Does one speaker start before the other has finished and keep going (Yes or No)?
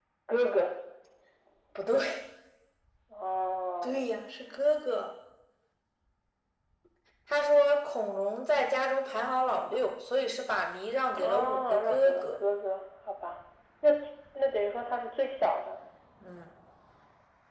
Yes